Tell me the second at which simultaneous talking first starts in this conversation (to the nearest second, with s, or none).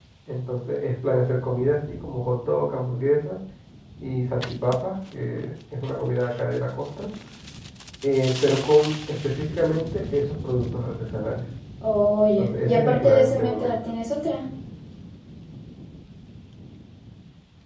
12 s